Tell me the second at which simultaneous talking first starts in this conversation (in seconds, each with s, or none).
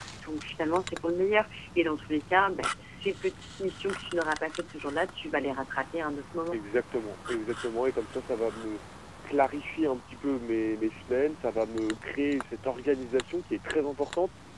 none